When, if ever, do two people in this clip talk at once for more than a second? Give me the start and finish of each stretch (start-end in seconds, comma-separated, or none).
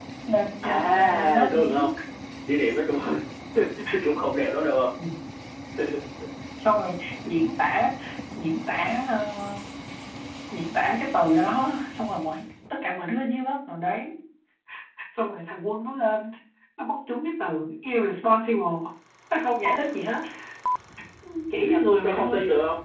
0.6-1.9